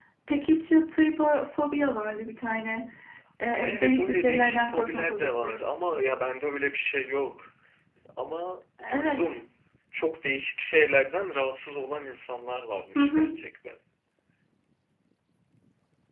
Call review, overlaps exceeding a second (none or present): present